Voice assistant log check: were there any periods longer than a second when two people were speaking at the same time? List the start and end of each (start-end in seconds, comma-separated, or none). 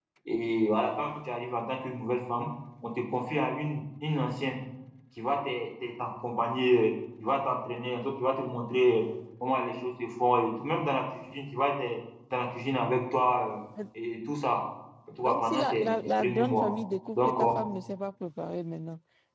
15.2-16.7